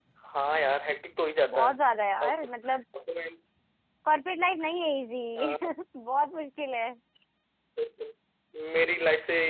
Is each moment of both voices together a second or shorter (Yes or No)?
Yes